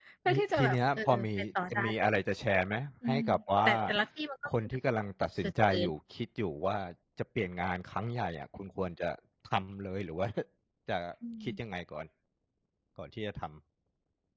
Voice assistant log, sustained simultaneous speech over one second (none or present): present